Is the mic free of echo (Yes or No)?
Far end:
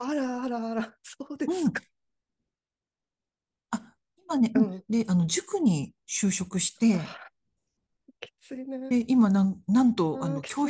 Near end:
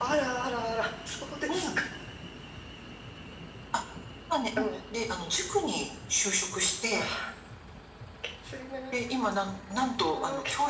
No